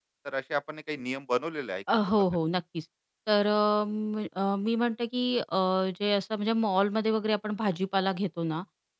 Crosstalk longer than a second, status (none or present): none